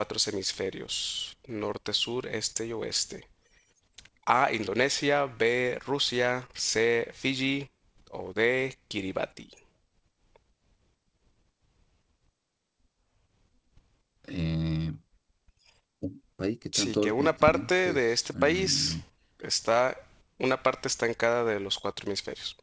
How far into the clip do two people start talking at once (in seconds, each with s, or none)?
16.7 s